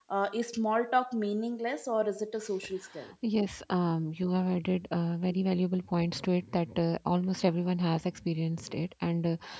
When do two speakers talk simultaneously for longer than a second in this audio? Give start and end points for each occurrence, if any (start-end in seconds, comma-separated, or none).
none